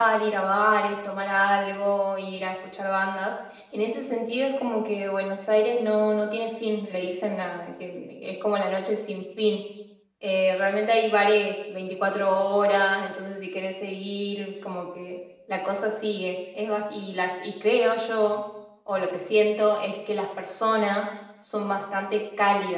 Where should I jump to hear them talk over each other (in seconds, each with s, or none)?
none